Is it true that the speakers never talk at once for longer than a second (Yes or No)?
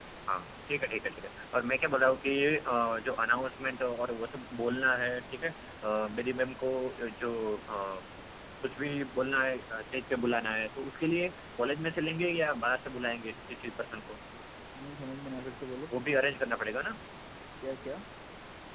Yes